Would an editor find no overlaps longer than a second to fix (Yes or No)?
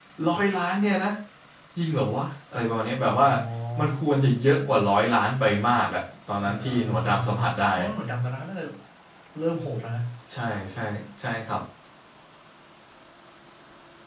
No